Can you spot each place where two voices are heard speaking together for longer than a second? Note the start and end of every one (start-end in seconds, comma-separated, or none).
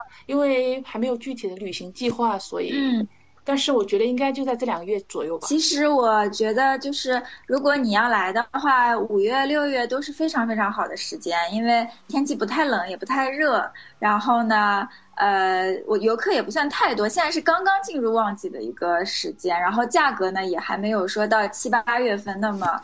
none